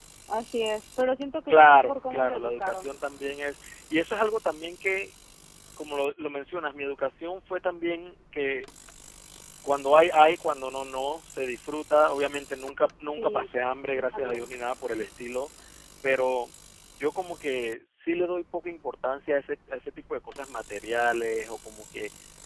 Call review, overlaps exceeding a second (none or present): present